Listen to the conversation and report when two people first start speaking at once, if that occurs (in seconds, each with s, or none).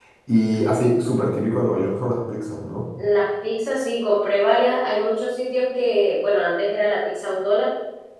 none